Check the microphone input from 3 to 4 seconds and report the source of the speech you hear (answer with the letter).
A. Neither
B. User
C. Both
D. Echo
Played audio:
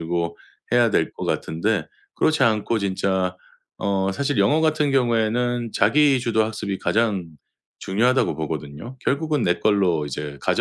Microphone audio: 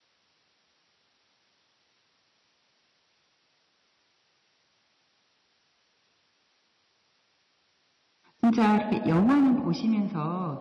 A